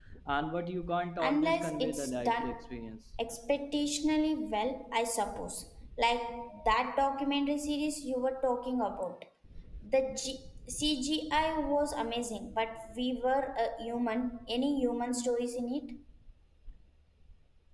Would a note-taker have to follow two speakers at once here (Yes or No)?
Yes